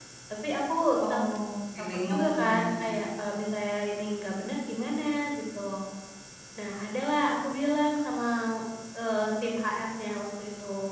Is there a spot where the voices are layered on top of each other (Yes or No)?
Yes